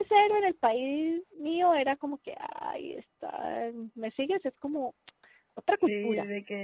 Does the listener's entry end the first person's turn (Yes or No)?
Yes